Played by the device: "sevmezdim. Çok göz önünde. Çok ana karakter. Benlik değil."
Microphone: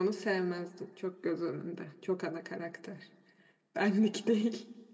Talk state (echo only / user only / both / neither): echo only